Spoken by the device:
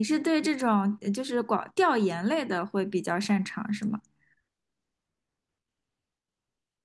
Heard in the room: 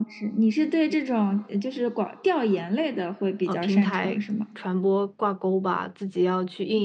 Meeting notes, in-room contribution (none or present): present